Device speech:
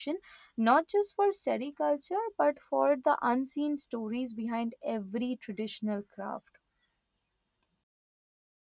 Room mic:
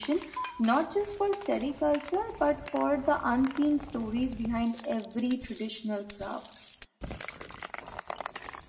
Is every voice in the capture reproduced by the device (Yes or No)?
Yes